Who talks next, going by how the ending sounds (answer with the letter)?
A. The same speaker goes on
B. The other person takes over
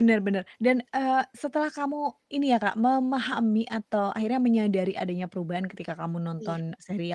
A